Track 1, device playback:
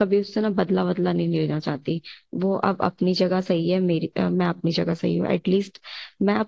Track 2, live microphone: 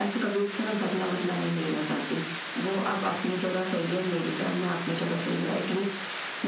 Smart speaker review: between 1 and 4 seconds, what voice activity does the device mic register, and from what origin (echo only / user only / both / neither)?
echo only